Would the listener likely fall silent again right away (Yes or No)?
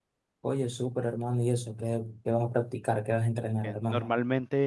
No